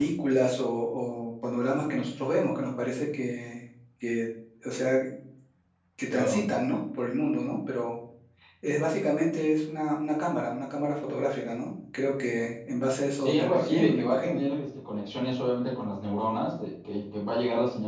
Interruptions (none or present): present